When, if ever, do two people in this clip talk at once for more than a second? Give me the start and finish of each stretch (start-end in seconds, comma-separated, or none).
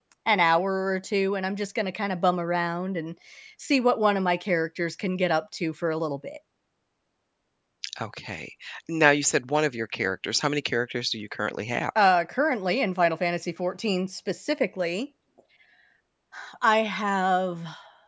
none